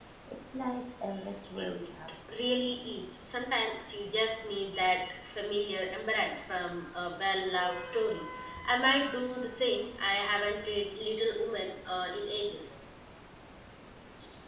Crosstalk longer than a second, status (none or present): none